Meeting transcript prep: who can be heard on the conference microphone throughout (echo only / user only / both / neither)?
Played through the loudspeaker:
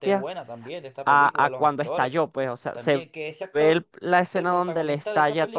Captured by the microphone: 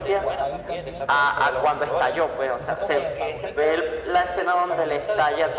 both